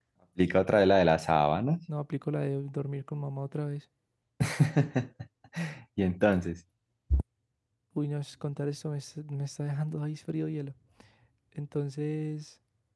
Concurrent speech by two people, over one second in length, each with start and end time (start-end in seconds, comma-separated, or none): none